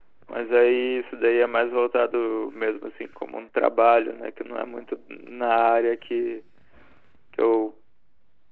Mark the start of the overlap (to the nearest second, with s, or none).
none